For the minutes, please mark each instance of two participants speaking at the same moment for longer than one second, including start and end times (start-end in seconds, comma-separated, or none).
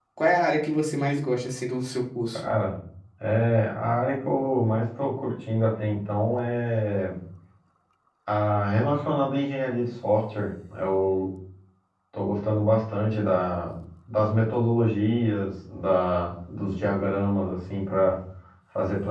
none